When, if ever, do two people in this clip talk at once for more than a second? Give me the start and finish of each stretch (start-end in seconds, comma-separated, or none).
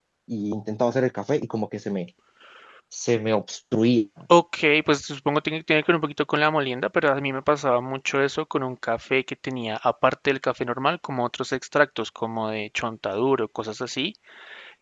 none